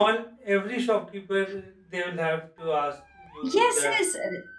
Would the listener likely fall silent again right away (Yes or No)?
No